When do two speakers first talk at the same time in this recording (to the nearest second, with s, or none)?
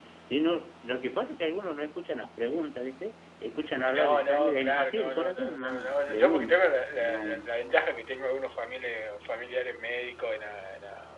4 s